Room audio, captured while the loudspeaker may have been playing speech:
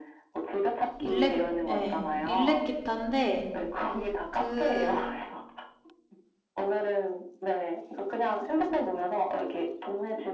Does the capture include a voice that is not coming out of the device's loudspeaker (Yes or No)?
Yes